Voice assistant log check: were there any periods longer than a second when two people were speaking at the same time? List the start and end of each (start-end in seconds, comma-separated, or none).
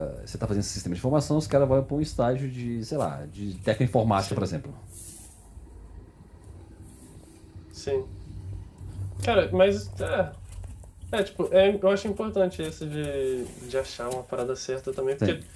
none